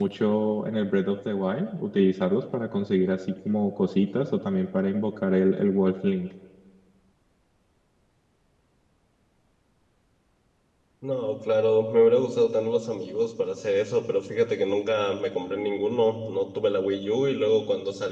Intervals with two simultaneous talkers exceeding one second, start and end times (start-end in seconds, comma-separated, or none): none